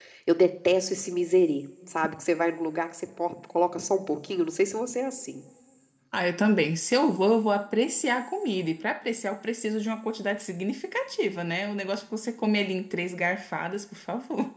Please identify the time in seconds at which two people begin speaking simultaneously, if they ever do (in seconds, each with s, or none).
none